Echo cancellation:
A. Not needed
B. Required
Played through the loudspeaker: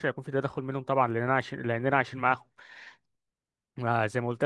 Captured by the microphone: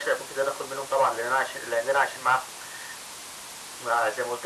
B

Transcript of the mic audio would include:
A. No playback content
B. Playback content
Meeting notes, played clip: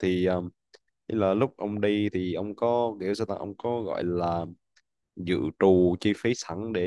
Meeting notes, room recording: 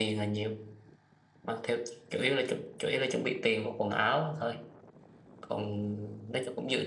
A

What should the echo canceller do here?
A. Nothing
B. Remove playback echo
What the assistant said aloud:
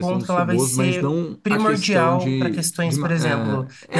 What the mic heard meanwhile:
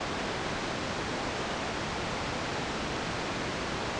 A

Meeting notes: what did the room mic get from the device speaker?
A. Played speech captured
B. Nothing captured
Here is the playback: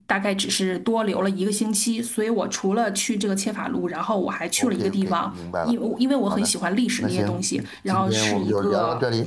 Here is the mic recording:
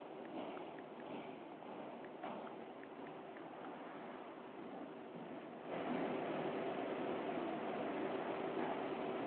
B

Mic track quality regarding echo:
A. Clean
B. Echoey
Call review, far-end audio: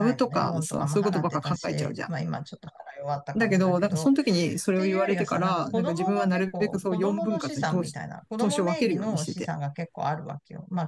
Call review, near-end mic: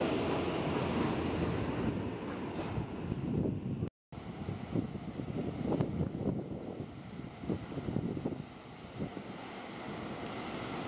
A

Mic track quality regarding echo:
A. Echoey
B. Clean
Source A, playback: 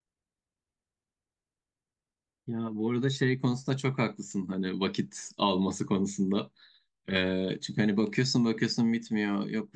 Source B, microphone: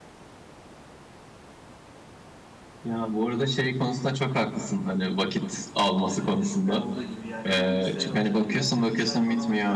A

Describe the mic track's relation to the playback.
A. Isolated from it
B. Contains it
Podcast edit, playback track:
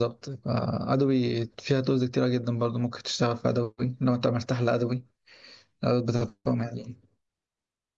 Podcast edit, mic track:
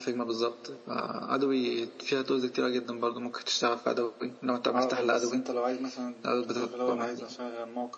B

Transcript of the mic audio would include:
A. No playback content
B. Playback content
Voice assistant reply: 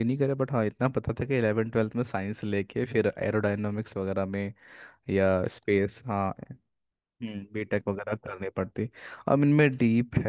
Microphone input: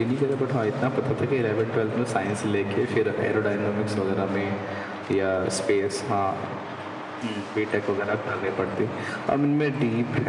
B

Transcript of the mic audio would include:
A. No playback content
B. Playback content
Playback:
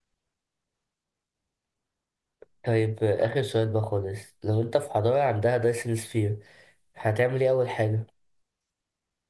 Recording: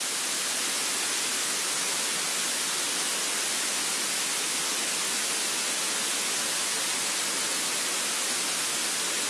A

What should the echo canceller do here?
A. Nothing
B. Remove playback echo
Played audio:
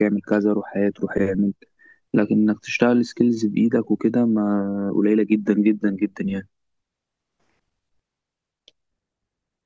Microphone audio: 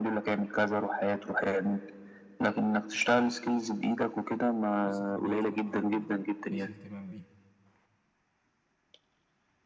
B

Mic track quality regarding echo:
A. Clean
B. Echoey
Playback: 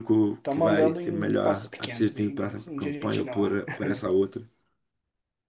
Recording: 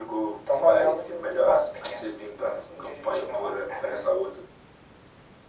B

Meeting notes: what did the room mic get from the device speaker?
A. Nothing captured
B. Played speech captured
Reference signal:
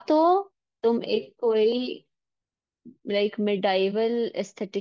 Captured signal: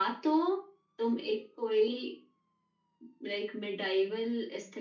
B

